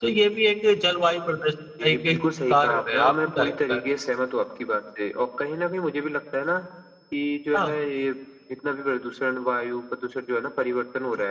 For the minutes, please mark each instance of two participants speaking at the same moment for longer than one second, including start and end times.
2.5-3.8

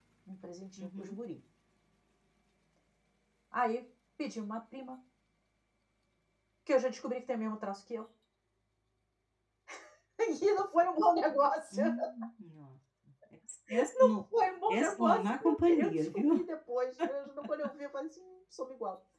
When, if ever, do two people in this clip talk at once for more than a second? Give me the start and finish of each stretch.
14.7-16.3

